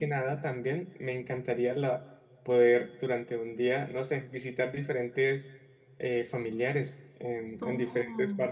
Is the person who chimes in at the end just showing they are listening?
No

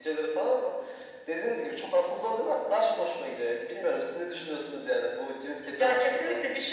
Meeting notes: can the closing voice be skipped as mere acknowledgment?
No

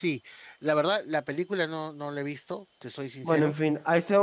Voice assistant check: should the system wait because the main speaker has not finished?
No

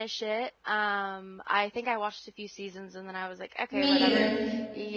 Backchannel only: Yes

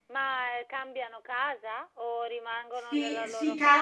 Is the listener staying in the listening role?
No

